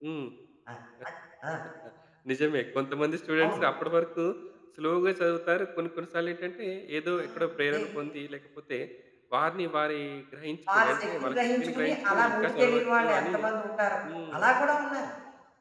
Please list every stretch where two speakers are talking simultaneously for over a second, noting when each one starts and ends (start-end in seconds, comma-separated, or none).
10.7-13.3